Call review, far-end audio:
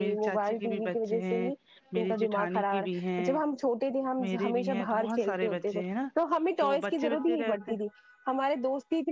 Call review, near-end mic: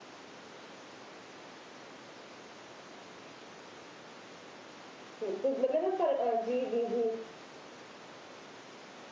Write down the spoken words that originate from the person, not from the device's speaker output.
بہت مطلب نا پر جی جی جی

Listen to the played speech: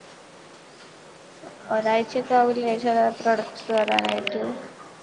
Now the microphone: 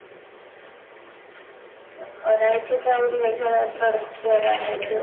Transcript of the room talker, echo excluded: none

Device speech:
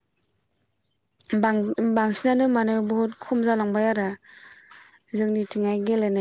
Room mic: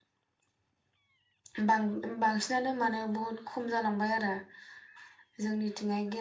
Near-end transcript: none

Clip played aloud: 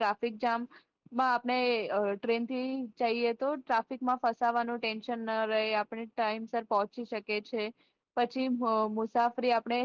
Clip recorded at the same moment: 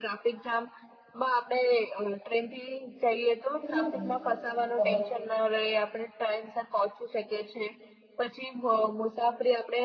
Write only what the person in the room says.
એટલે હું તો એમ કહું,

